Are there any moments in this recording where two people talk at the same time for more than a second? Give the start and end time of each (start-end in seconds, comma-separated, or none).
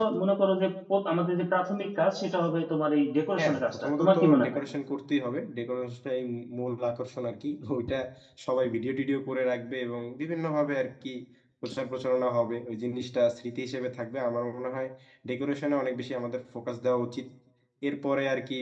3.4-4.6